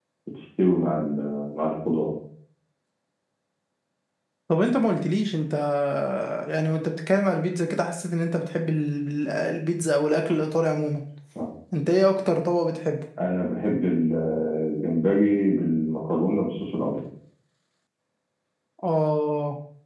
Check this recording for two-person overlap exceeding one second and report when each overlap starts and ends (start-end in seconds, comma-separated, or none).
none